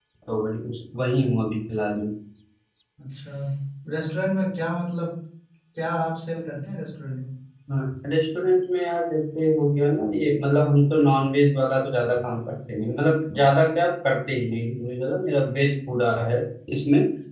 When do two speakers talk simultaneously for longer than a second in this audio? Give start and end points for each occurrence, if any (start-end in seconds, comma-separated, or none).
none